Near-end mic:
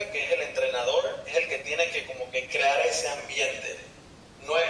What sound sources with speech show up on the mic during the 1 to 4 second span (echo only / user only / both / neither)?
echo only